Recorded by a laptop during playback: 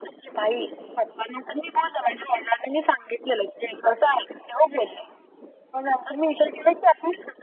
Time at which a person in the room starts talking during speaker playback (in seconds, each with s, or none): none